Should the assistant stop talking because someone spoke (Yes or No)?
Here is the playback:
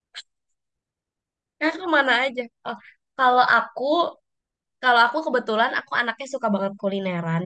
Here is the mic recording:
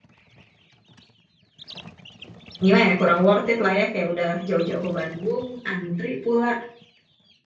Yes